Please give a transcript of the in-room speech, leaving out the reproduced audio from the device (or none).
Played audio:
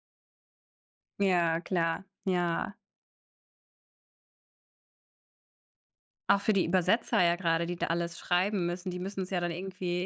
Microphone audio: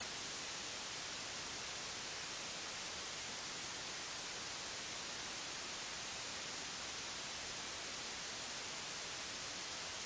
none